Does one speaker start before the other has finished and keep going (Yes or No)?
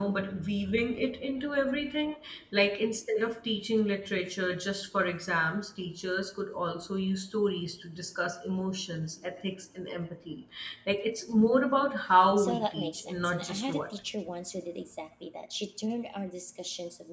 Yes